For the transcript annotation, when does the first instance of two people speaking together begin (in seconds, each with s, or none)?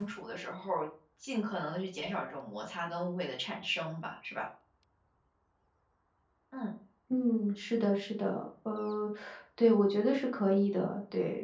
none